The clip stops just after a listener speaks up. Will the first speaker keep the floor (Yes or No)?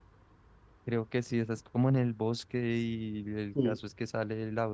Yes